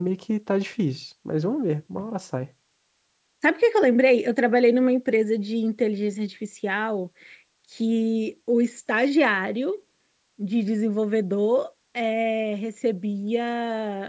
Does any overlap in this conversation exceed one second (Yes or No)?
No